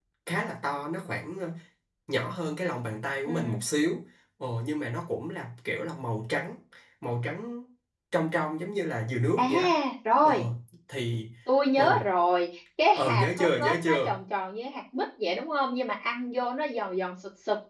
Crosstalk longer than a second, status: present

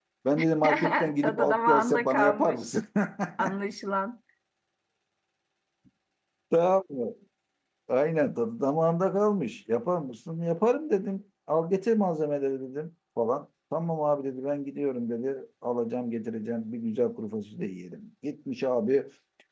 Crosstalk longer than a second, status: present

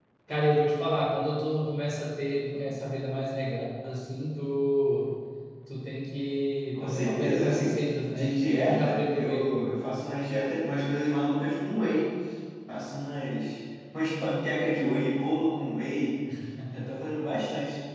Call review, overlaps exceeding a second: present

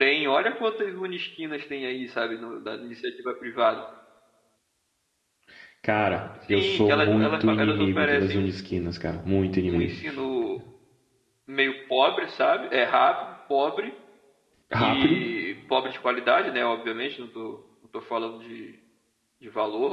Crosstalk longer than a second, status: present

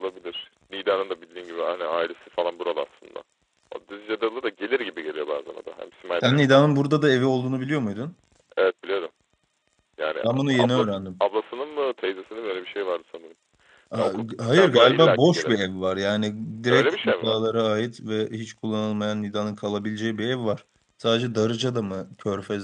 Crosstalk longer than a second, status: present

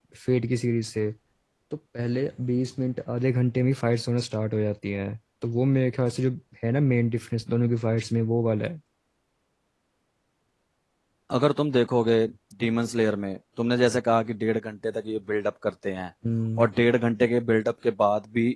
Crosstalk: none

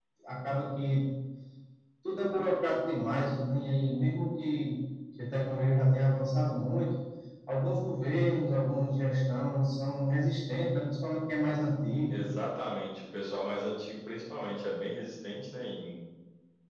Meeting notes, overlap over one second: none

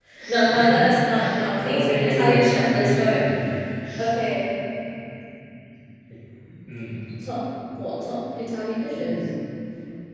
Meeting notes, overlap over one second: present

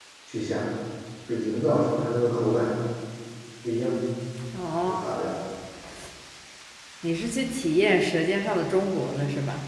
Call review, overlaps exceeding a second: none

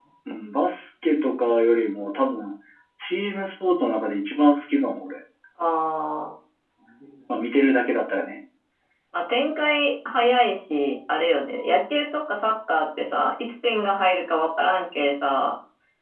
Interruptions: none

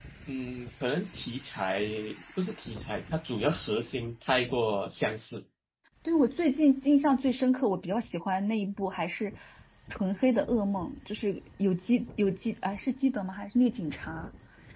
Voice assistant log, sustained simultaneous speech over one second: none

